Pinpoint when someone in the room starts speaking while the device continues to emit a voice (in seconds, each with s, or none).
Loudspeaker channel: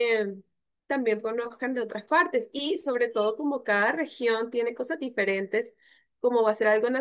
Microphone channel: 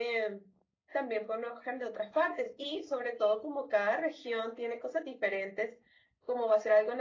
none